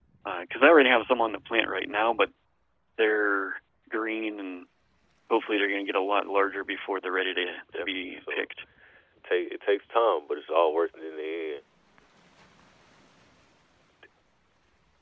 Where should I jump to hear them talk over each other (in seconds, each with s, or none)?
7.2 s